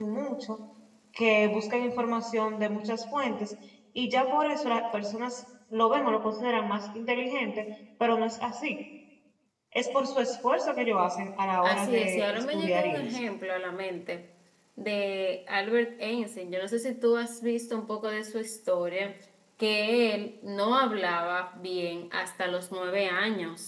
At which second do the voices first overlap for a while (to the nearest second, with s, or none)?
12 s